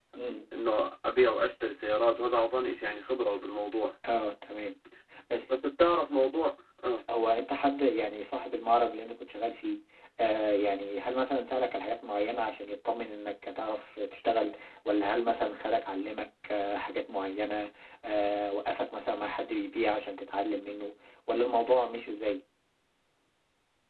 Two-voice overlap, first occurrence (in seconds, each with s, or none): none